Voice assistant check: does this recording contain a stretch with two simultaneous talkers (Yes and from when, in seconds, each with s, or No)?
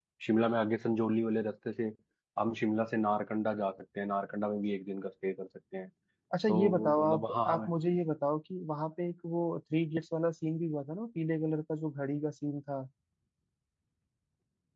Yes, from 6.5 s